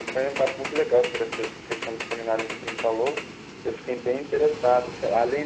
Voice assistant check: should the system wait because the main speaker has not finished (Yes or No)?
Yes